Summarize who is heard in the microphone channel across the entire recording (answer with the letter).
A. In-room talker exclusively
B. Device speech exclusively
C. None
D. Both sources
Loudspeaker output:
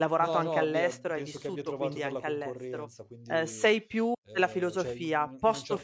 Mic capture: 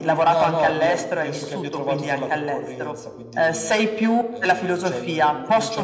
B